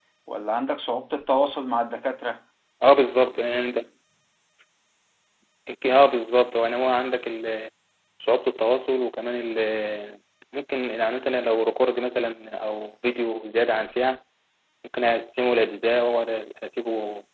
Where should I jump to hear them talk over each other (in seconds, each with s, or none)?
none